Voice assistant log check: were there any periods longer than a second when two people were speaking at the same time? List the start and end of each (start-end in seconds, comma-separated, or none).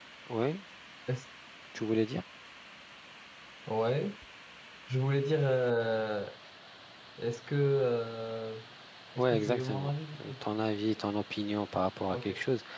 9.2-10.4